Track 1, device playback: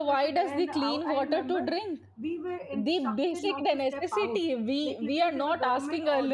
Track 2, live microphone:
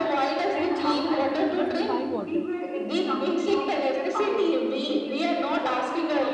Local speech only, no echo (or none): 10,000 rupees just to buy water,